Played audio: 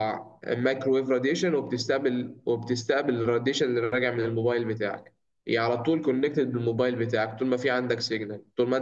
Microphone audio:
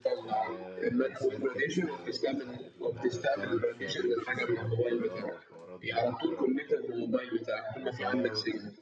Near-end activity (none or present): present